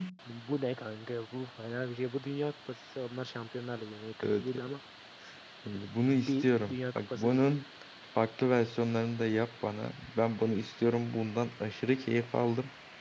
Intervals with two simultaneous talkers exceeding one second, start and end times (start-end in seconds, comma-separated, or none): 6.1-7.4